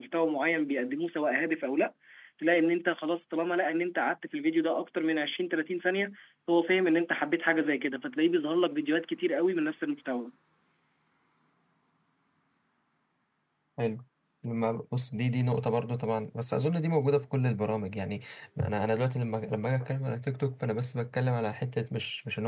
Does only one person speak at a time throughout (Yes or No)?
Yes